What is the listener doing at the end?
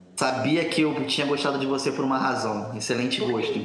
listening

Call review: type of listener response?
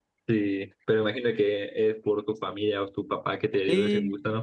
taking over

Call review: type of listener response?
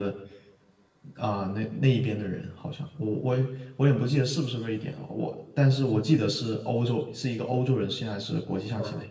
taking over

